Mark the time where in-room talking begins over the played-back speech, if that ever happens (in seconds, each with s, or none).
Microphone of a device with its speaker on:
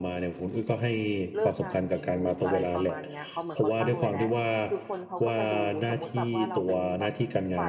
1.3 s